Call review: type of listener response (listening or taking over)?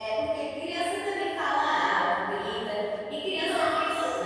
listening